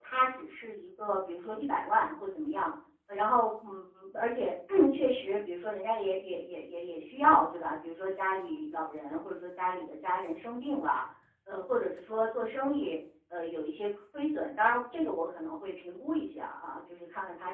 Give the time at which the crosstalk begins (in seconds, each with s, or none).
none